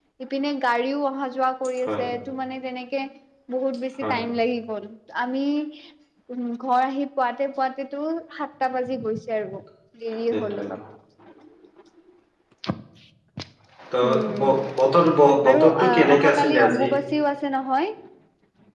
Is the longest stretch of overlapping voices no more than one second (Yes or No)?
No